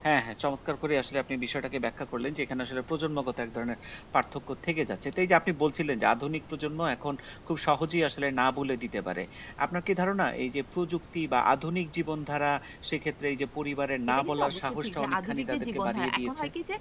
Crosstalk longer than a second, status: present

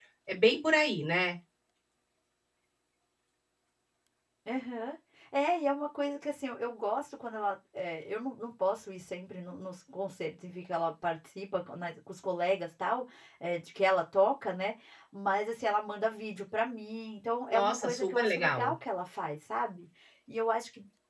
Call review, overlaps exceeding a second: present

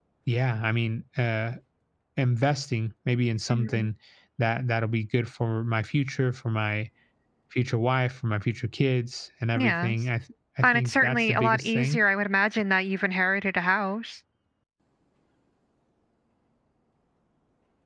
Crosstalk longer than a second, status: present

